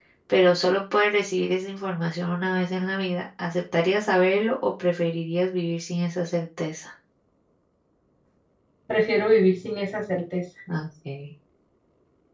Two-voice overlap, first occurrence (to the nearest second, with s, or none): none